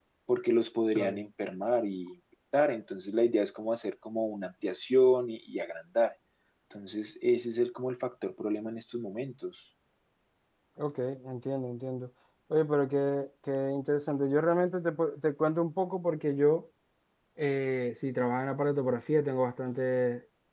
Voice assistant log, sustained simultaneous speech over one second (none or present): none